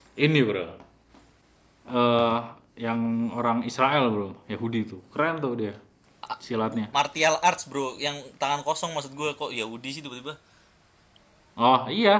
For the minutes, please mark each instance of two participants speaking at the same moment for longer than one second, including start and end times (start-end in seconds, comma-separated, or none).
none